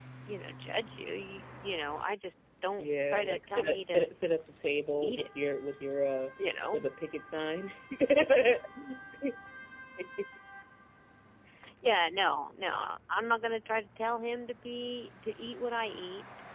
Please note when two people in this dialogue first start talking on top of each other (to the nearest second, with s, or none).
3 s